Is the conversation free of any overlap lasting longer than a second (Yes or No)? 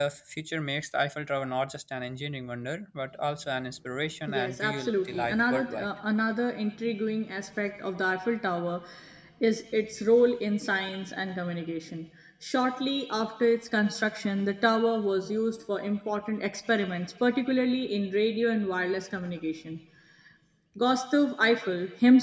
No